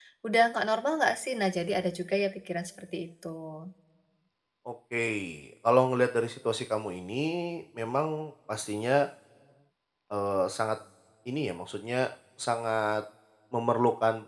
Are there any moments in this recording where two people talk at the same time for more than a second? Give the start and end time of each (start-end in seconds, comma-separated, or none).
none